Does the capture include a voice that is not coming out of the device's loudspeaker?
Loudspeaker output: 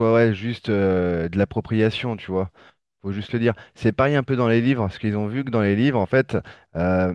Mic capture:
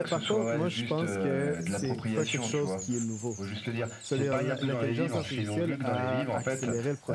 Yes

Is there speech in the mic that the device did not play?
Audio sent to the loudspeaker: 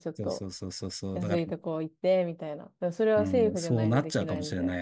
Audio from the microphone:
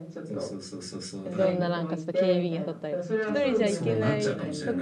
Yes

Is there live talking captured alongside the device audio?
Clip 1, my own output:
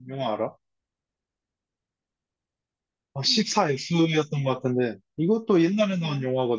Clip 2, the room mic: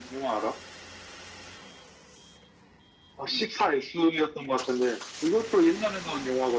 No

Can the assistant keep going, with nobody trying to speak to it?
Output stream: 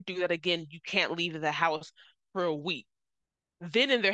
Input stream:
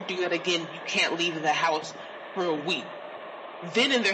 Yes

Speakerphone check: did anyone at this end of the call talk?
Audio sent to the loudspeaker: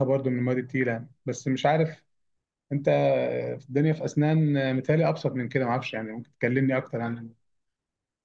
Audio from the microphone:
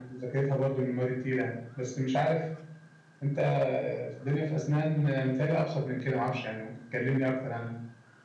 No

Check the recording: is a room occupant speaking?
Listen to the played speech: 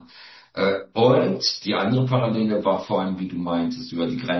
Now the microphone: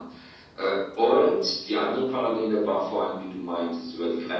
No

